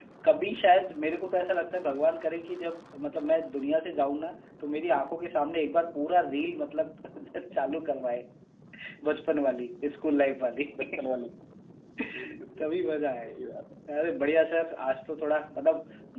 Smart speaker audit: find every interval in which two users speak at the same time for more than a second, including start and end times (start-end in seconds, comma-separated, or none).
none